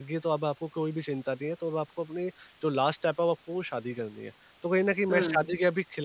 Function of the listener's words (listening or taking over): listening